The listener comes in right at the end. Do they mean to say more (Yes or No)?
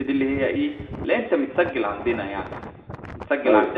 No